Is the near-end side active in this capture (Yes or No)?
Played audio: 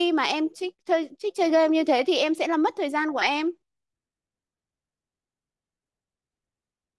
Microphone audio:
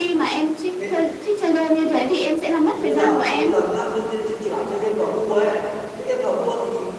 Yes